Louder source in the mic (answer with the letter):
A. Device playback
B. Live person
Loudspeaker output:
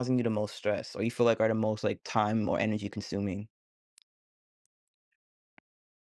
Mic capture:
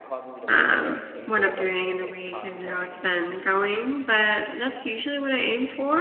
B